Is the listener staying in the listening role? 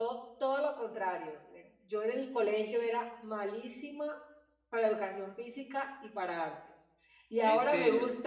Yes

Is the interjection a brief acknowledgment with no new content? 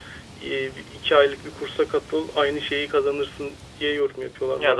No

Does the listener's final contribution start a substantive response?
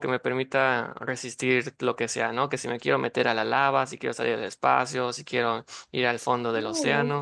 Yes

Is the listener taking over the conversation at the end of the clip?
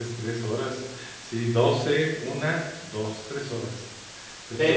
Yes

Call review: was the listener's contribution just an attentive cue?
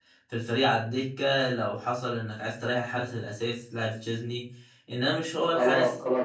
No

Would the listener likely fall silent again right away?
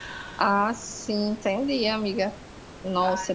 Yes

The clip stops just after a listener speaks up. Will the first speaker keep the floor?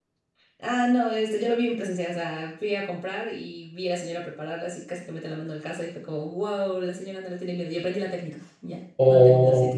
No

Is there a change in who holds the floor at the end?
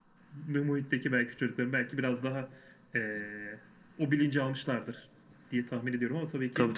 Yes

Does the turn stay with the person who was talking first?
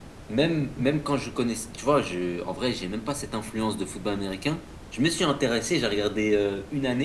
Yes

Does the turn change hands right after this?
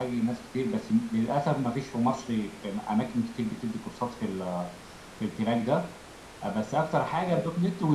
No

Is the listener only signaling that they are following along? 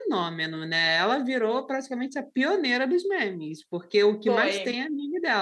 Yes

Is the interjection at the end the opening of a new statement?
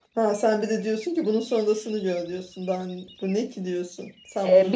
Yes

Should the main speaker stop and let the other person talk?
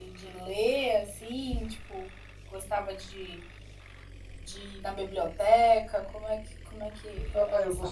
Yes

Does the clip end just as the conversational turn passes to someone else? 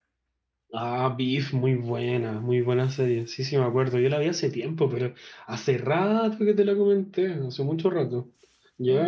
Yes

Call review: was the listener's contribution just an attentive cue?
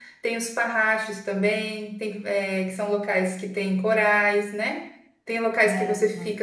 Yes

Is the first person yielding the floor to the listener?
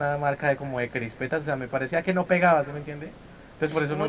Yes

